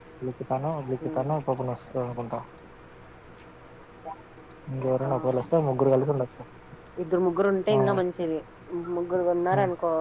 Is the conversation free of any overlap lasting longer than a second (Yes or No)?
Yes